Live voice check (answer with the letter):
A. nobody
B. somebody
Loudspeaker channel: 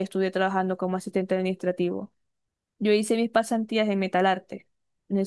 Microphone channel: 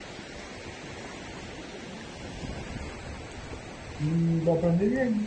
B